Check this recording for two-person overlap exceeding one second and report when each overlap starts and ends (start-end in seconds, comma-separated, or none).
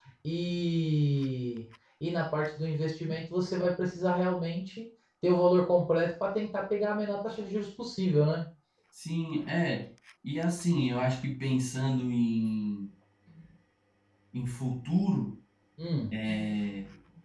none